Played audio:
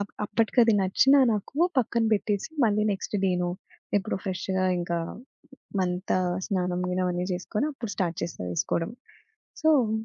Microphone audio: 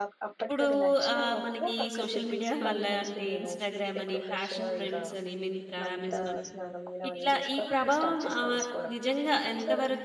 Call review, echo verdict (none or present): present